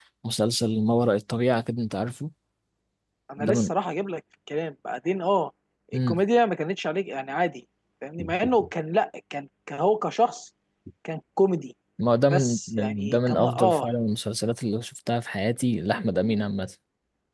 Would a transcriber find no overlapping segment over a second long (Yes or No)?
No